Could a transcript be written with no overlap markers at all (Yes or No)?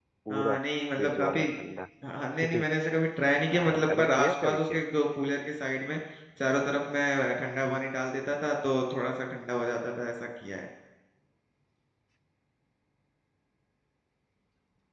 No